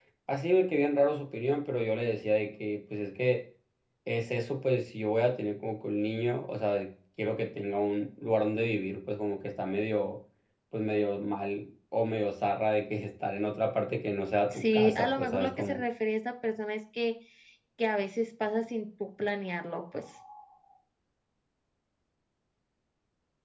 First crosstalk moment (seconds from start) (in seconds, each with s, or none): 14.5 s